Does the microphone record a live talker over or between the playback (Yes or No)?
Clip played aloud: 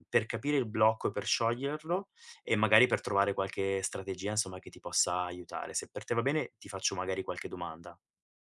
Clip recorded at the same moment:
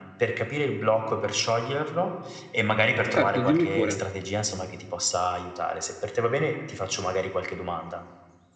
Yes